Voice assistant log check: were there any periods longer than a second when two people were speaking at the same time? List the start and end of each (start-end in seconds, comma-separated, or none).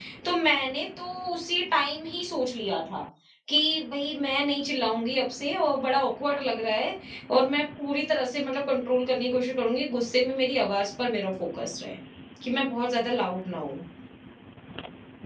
none